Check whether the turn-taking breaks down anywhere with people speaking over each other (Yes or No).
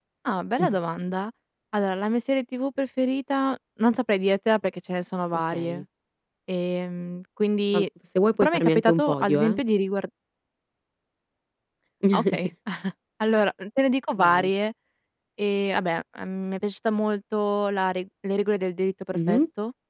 Yes